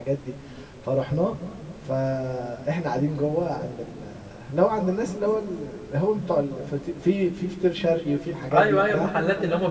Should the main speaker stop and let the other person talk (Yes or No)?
Yes